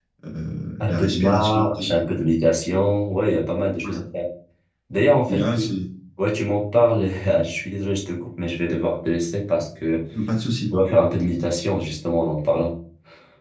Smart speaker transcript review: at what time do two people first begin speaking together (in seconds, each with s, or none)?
0.8 s